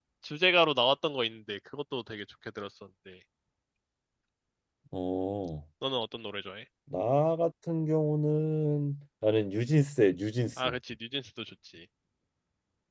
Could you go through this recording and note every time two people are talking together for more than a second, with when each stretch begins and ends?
none

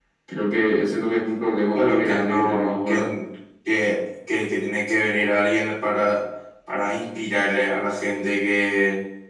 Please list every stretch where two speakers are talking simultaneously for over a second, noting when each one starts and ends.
1.7-3.1

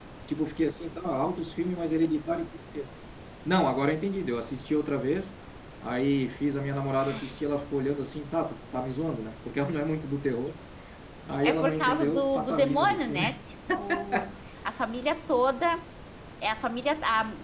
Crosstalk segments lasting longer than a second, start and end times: 11.4-13.4

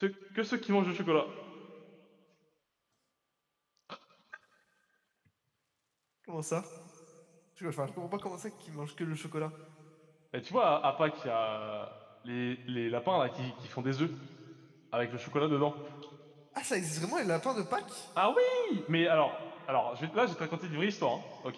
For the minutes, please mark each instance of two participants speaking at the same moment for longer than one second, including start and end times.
none

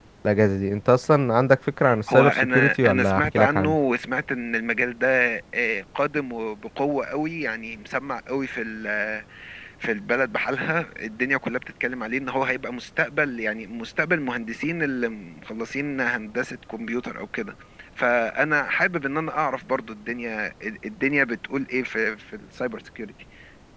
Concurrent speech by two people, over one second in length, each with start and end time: 2.1-3.8

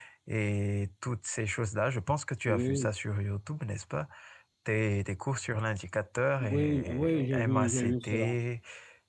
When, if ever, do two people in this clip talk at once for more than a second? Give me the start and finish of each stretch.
6.4-8.4

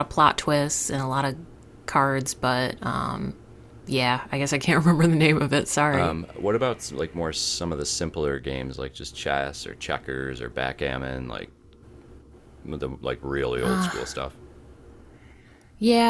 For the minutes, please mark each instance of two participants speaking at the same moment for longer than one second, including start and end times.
none

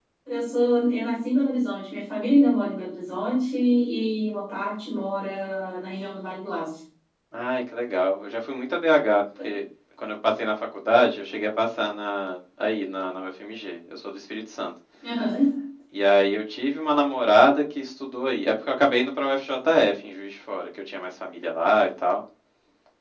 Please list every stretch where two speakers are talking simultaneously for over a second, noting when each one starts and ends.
none

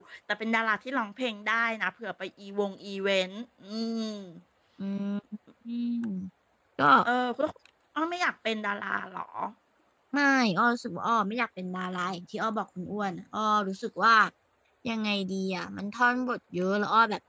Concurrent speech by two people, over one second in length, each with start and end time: none

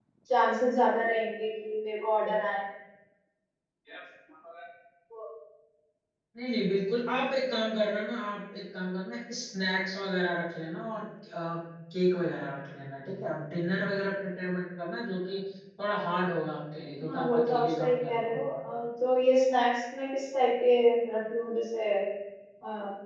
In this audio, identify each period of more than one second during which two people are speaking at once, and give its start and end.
17.1-18.4

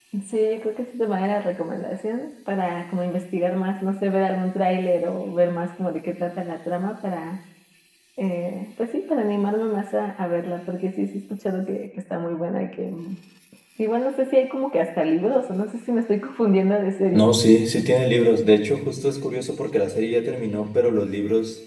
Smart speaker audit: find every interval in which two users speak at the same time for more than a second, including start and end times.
none

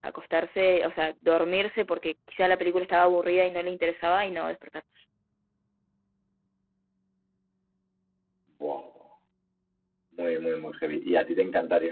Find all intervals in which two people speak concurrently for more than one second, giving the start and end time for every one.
none

